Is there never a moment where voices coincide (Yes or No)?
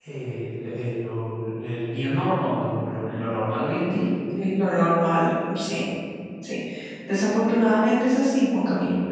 Yes